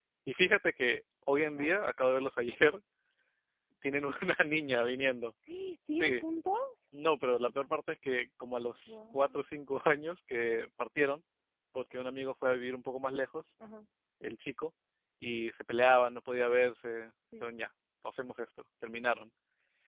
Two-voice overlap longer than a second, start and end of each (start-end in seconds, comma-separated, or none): none